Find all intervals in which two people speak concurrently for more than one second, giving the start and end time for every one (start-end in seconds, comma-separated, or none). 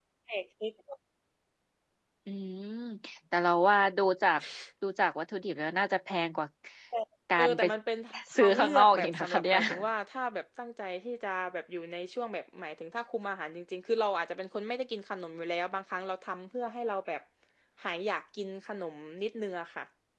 8.4-9.6